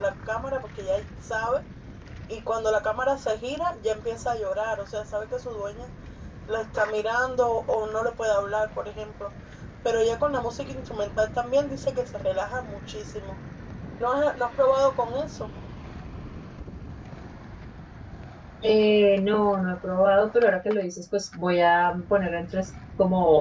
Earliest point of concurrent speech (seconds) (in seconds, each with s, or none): none